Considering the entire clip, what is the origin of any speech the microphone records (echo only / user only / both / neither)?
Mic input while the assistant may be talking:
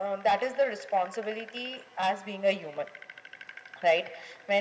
echo only